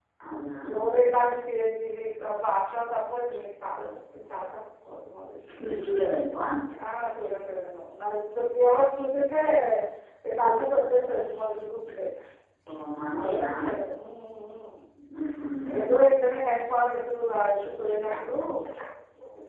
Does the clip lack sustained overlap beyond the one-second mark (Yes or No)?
Yes